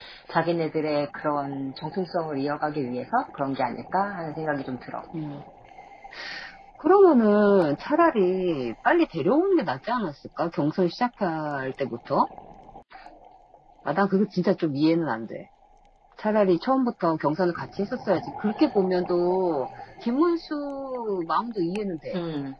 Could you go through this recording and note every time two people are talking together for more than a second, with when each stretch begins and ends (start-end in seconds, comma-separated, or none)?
none